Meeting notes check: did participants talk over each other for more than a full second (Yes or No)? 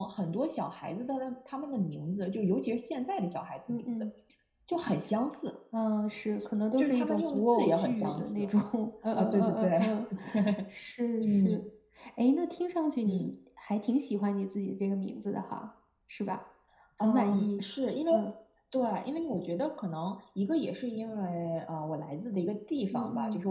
Yes